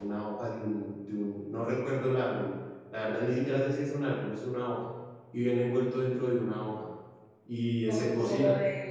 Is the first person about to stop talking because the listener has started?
Yes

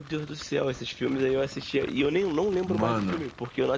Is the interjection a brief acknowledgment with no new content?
Yes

